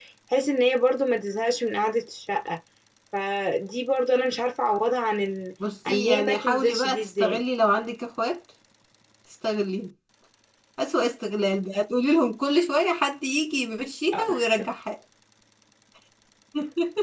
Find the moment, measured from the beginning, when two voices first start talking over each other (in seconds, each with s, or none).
5.9 s